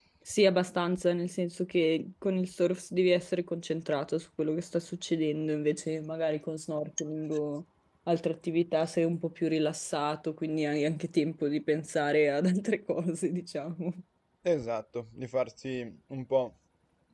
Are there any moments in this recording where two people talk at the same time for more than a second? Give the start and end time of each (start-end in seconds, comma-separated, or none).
none